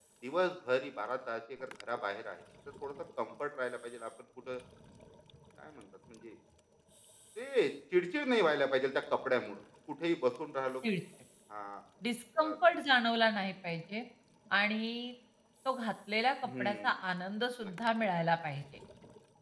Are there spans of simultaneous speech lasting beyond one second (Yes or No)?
No